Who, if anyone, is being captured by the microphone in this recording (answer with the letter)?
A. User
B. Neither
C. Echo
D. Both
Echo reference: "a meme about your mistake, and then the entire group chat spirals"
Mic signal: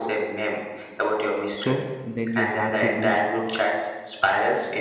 D